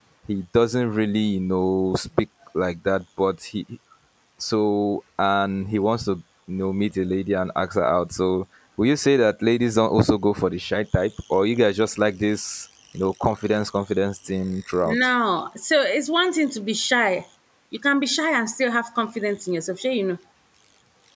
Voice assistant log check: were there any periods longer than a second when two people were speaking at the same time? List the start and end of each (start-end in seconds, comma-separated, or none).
none